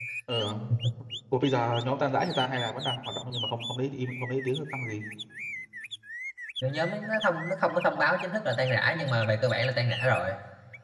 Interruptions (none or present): none